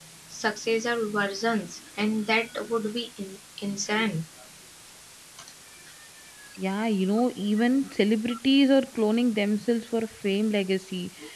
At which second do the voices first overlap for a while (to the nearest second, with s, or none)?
none